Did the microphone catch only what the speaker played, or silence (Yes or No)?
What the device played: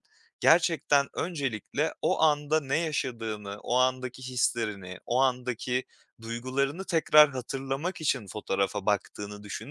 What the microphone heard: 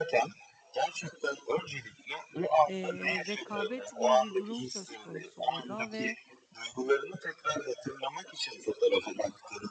No